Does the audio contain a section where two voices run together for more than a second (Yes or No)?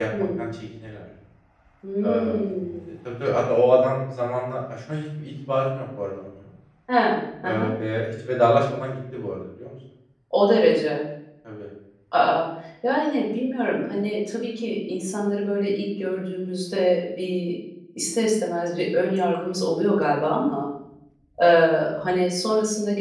No